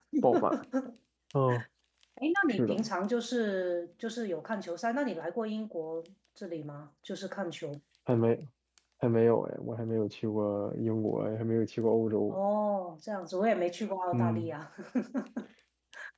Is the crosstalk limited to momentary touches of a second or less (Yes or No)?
Yes